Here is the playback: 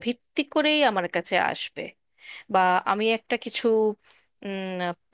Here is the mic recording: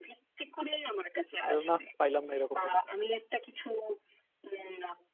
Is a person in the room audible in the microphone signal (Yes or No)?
Yes